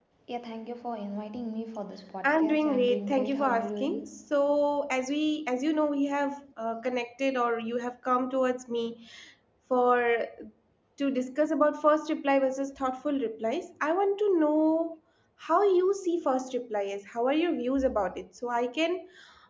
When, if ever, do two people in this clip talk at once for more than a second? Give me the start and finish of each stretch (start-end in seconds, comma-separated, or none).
2.2-4.2